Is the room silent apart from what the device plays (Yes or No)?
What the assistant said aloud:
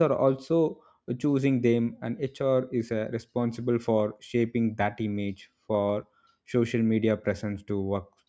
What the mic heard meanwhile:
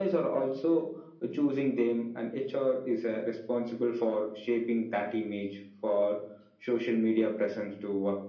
Yes